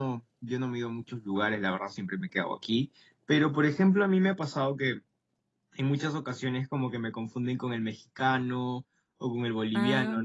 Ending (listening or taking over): listening